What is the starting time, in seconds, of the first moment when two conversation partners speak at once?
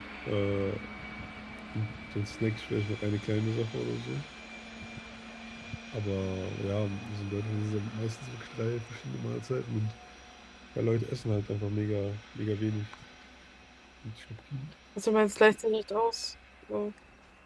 none

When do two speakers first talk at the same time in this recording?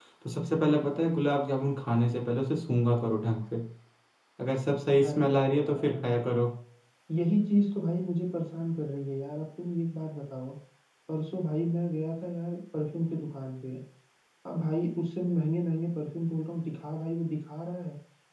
5.0 s

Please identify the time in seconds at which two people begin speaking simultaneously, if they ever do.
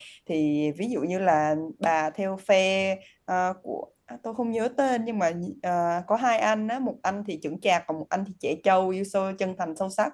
none

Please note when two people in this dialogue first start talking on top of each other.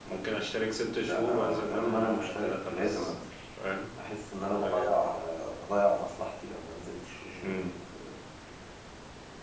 1.1 s

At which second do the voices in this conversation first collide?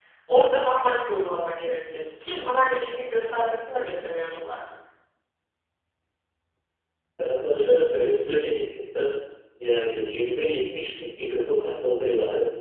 none

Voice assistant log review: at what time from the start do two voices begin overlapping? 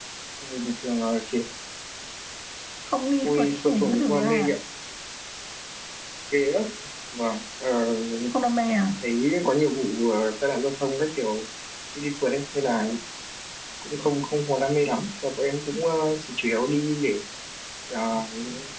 3.2 s

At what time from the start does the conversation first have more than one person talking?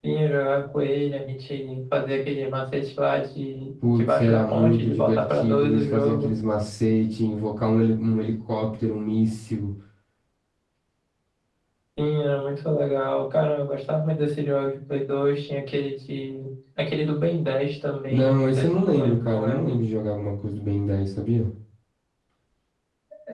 3.8 s

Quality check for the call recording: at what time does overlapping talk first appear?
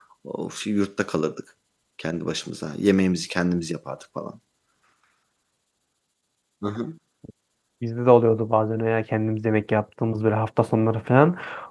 none

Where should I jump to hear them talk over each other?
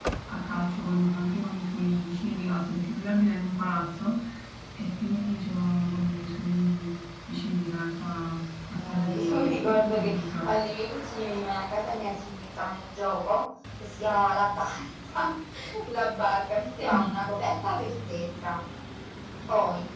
8.7 s

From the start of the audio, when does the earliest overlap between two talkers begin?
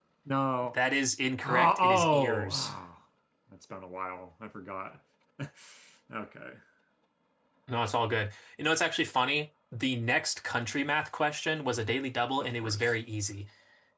1.4 s

